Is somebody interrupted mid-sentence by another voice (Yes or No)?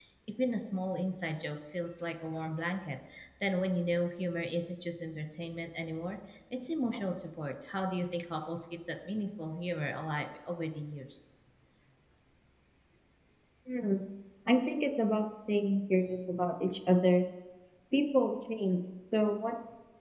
No